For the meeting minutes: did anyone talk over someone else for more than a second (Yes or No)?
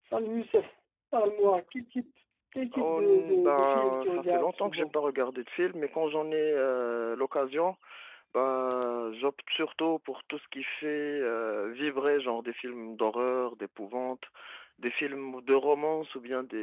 Yes